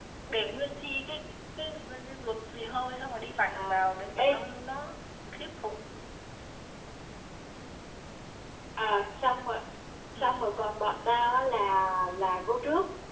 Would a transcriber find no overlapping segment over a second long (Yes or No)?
Yes